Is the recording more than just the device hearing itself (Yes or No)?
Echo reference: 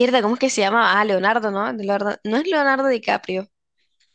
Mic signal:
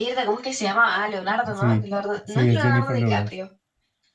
Yes